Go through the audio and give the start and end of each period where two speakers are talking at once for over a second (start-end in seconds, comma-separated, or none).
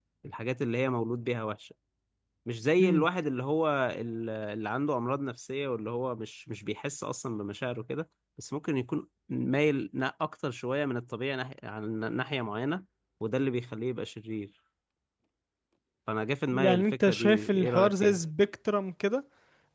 16.5-18.2